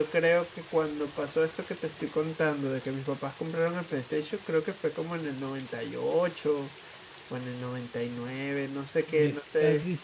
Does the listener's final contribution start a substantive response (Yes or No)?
Yes